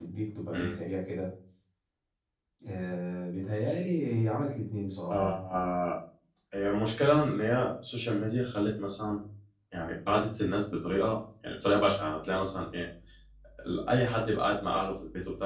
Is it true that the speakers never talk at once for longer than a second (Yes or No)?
Yes